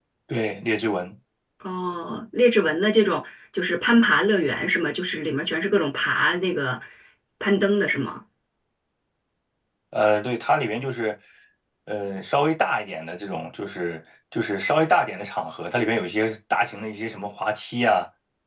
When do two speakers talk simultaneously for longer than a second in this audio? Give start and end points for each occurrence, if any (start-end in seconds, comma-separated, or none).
none